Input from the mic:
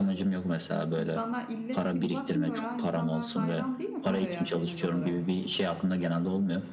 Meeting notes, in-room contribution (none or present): present